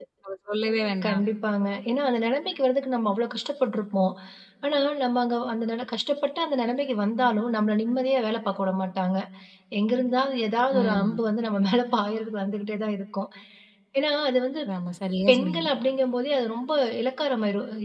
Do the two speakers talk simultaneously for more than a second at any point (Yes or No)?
No